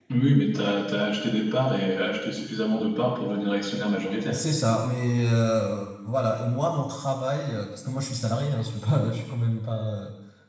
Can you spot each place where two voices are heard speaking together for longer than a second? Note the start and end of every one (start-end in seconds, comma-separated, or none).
none